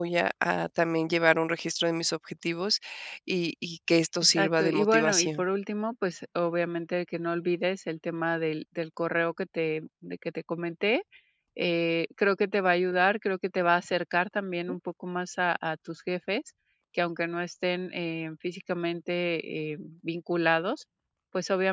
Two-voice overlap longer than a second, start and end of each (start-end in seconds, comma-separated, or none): 4.2-5.4